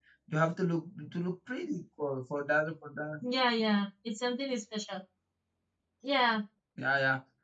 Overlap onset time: none

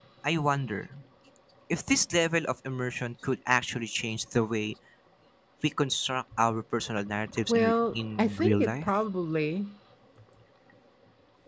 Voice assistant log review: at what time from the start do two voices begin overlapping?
7 s

